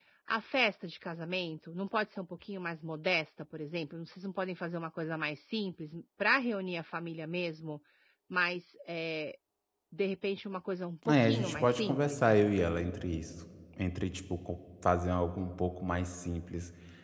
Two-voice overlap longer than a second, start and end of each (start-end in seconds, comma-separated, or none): 11.1-12.4